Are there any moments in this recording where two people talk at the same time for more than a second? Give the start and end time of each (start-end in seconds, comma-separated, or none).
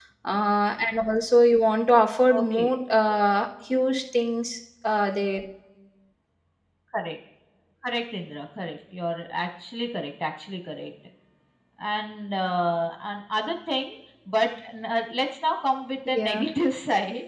none